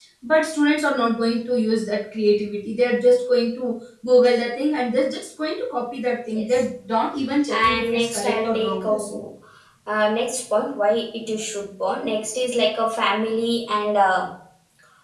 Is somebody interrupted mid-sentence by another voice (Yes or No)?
Yes